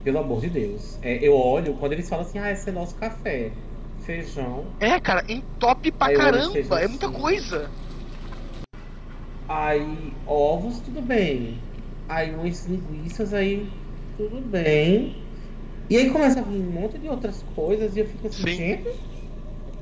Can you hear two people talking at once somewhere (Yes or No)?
Yes